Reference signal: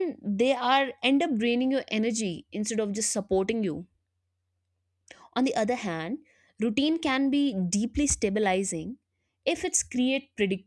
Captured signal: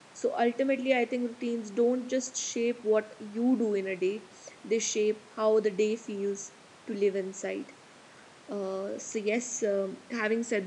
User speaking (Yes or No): Yes